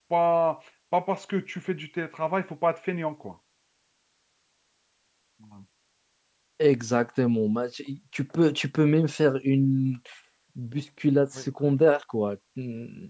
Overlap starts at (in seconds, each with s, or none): none